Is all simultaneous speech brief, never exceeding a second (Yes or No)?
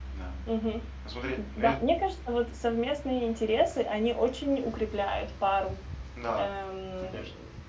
Yes